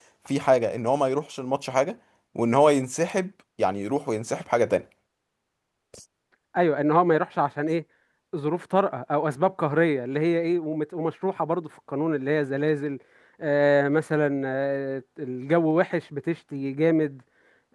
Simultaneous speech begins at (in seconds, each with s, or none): none